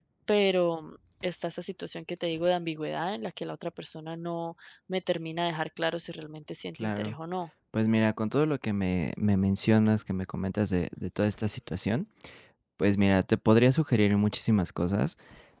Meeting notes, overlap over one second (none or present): none